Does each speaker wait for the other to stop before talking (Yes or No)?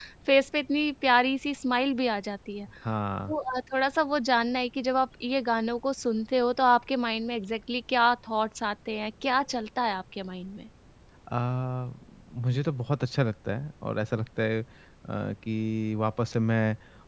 Yes